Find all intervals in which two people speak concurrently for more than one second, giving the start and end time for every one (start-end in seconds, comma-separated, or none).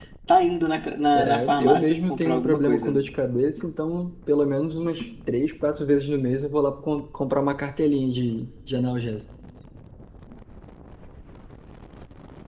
1.1-3.0